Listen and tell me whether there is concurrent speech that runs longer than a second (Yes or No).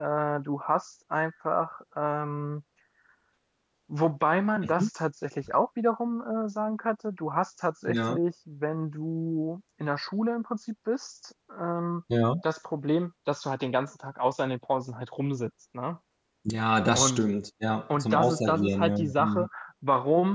Yes